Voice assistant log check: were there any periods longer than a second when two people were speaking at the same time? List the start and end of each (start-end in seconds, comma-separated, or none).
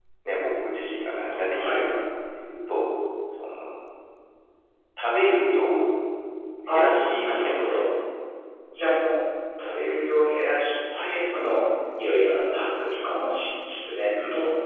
6.7-7.9